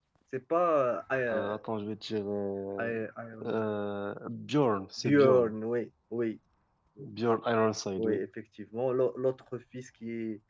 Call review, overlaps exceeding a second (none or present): none